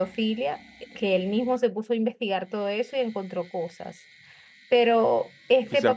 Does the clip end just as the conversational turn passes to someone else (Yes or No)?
Yes